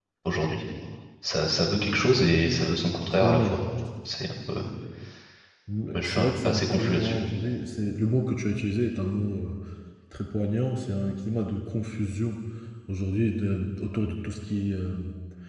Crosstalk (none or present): present